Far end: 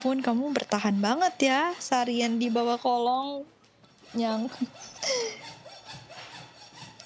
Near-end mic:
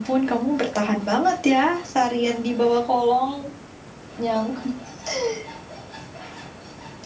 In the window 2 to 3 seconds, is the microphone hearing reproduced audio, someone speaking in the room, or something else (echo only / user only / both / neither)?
echo only